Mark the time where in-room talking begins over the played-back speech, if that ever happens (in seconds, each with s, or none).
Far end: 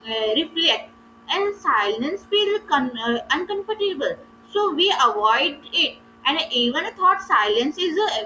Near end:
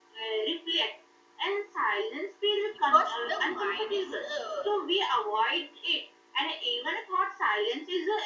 2.8 s